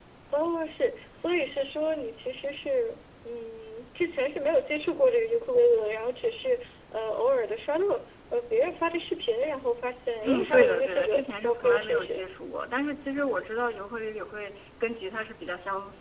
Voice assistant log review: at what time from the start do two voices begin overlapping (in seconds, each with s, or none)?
10.2 s